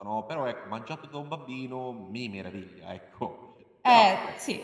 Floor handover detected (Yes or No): Yes